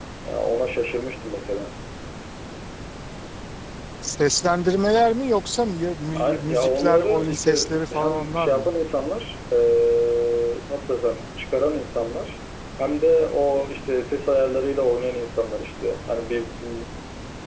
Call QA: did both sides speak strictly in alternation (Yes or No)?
No